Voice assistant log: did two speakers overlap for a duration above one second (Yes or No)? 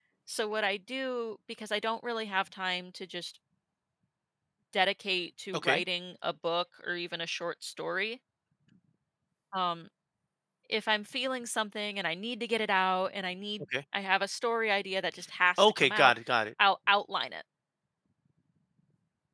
No